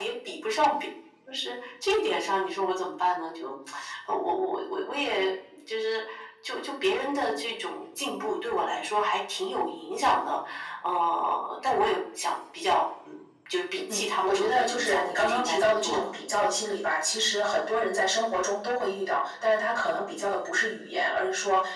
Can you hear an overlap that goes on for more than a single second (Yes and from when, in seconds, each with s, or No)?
Yes, from 13.9 s